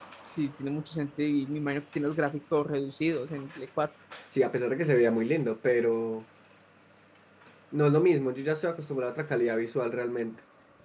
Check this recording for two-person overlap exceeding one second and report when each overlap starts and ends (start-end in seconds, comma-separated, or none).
none